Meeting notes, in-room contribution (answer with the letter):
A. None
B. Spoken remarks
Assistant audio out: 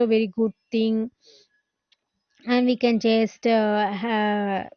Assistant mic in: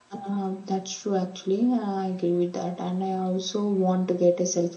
B